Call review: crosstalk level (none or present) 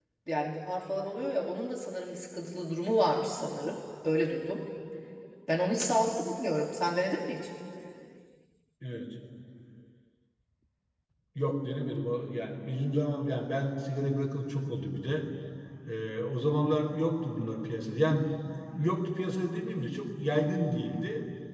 none